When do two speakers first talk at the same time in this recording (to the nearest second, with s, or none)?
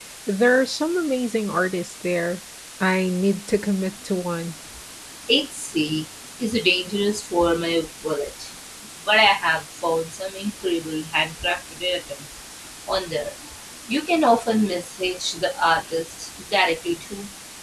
none